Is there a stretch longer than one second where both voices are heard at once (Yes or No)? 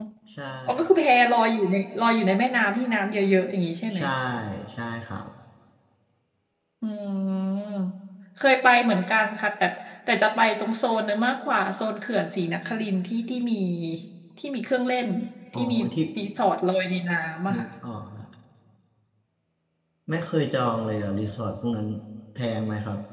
No